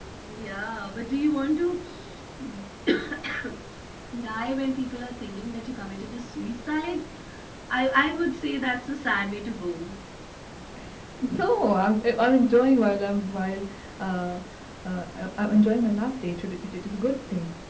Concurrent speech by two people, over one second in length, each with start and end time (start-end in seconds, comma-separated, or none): none